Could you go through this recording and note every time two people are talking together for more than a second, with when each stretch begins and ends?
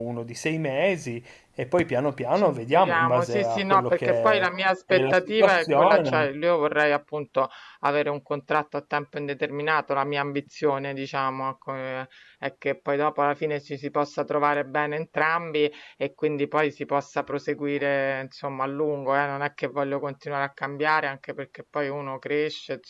2.4-4.4, 4.9-6.3

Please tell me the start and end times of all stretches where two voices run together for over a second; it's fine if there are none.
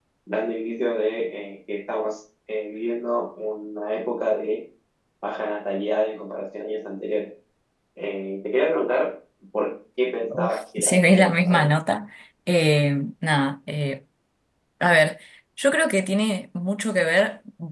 10.3-11.7

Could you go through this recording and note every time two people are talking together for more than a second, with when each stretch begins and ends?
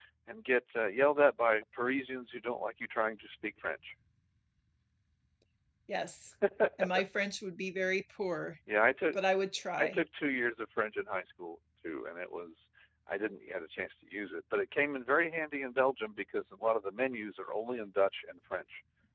none

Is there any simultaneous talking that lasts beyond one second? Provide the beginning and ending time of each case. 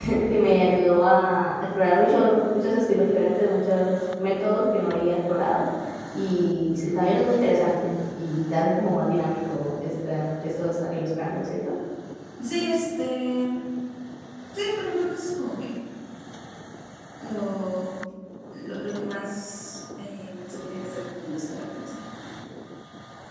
none

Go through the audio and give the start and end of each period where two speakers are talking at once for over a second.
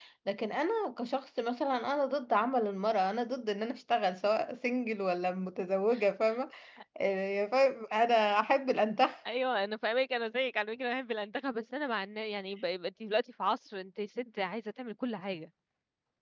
none

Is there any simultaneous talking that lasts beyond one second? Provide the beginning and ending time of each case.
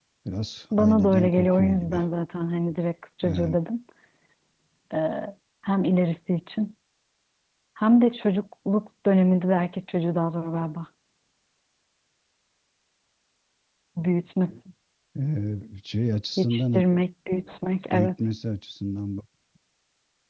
0.7-2.0

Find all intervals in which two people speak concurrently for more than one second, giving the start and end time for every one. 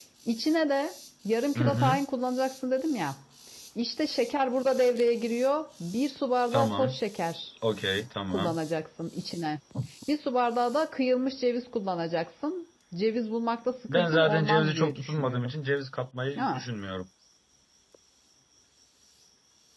13.9-15.5

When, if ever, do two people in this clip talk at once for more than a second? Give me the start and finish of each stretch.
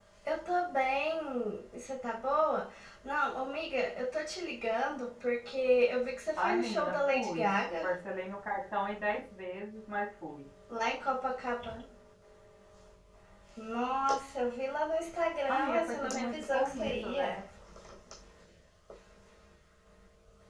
6.4-7.9, 15.5-17.4

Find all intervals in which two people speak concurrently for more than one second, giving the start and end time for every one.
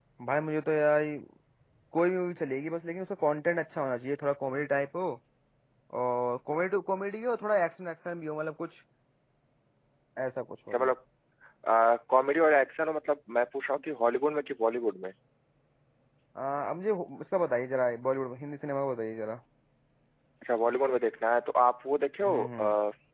none

